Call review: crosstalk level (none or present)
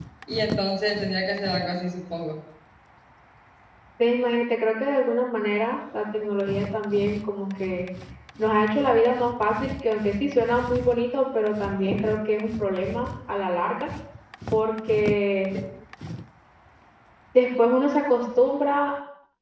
none